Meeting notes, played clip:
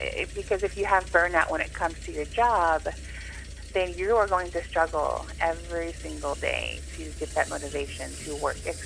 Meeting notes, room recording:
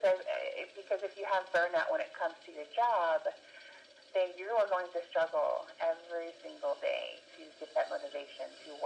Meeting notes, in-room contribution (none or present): none